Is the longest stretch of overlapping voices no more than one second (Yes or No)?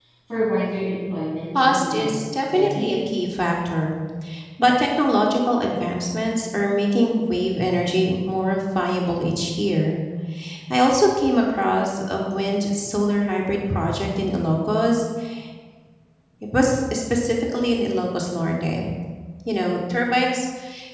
No